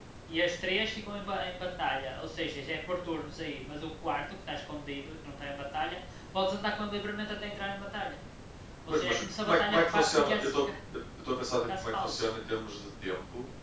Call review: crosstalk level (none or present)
present